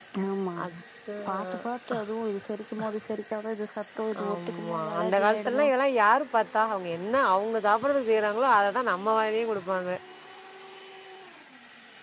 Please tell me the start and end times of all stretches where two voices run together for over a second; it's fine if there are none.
4.2-5.7

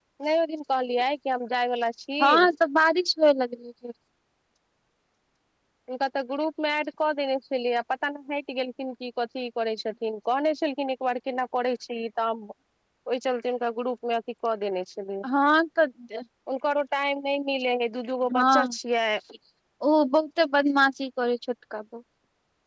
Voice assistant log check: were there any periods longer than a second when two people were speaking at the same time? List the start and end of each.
none

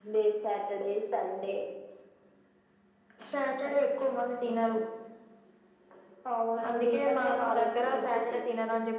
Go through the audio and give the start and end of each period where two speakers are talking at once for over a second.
6.7-8.4

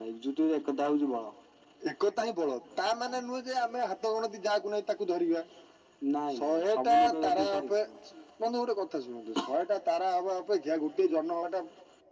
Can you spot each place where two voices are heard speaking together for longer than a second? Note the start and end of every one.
6.4-7.9

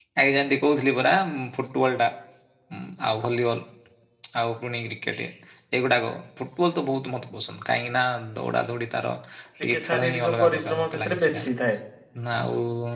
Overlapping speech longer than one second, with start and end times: 9.7-11.4

